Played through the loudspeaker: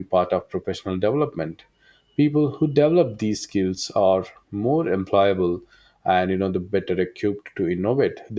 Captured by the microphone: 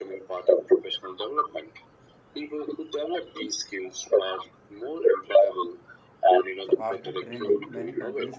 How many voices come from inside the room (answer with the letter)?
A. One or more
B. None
A